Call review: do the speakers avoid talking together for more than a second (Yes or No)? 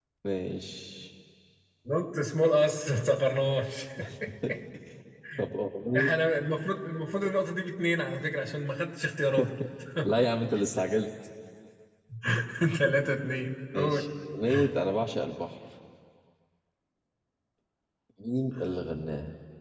Yes